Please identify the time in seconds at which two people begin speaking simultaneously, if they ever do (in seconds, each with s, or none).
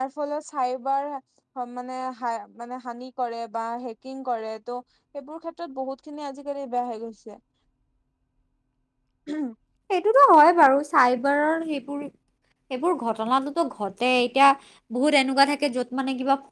none